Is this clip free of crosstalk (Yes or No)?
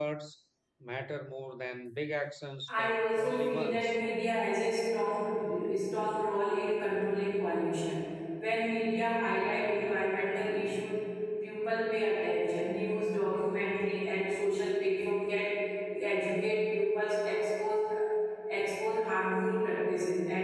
No